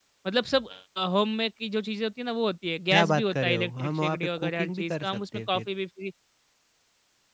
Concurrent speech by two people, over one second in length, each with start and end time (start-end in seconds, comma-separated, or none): 2.9-5.7